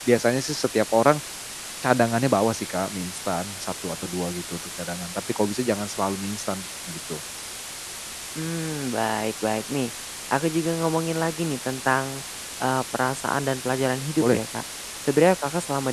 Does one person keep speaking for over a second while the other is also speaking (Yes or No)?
No